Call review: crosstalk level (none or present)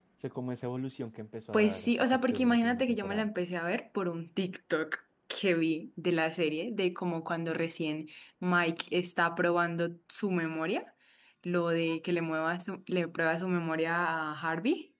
present